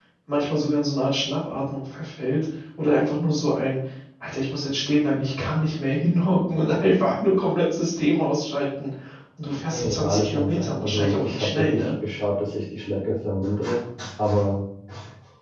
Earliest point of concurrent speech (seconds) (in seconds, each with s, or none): 9.7 s